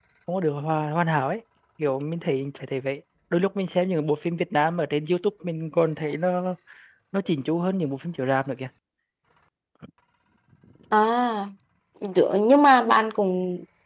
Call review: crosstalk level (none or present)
none